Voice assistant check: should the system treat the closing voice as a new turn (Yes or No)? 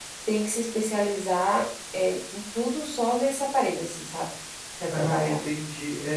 Yes